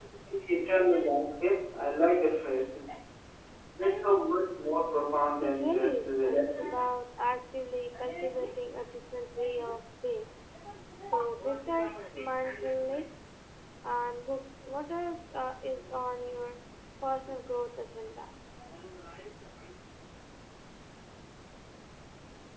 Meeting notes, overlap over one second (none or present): present